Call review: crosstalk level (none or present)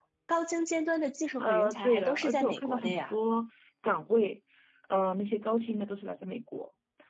present